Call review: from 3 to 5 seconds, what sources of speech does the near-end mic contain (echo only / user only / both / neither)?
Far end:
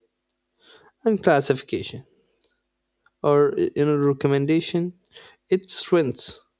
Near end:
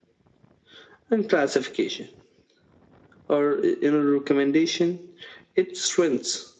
echo only